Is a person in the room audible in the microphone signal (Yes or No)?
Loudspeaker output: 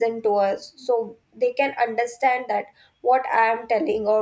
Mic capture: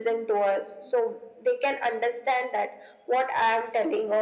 No